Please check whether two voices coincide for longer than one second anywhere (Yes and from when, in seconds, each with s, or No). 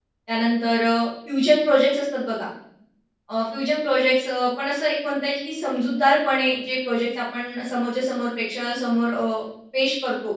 No